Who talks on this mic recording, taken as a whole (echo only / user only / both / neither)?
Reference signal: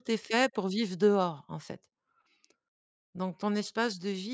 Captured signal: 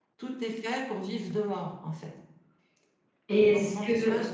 both